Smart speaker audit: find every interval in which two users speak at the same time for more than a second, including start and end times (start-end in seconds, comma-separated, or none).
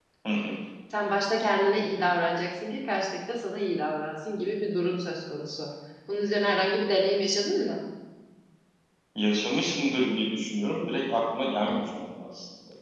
none